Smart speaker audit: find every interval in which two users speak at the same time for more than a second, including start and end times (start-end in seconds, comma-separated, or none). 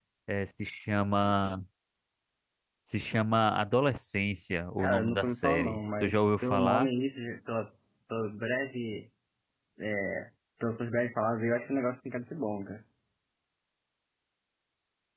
4.8-6.9